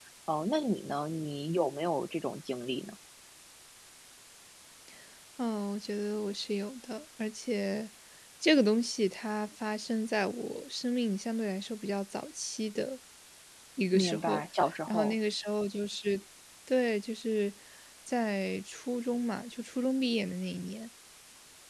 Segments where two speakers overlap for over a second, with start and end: none

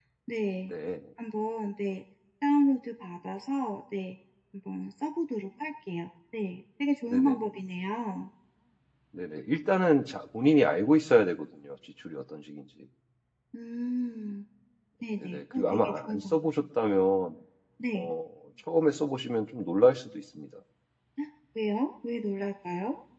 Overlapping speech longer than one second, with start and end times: 15.2-16.5

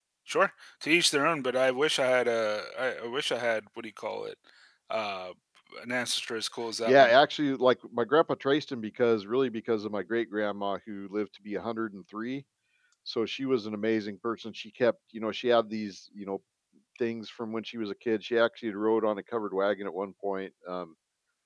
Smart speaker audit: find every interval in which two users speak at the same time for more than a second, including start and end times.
none

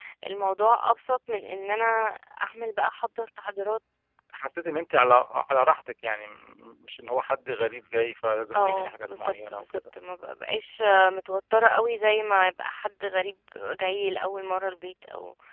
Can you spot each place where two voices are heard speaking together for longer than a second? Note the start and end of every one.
8.5-9.8

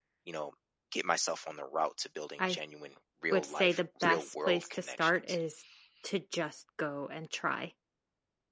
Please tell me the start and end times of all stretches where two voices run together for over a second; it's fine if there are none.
3.3-5.4

